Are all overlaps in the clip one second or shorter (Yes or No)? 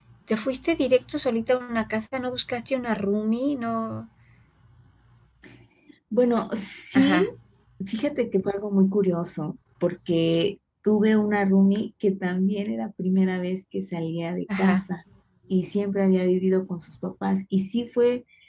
Yes